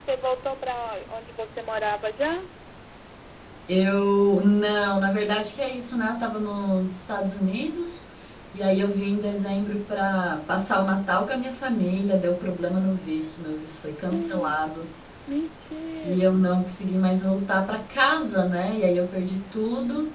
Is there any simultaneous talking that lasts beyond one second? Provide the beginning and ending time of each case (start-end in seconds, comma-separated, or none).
none